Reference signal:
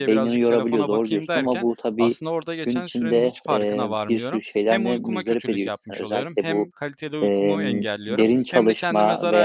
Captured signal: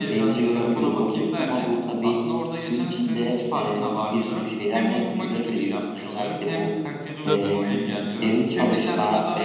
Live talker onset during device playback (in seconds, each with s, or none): 7.2 s